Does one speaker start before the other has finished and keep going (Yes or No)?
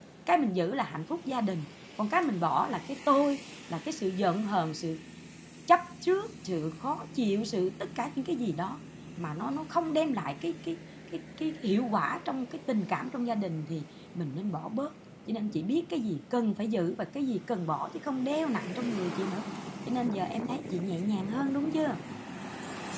No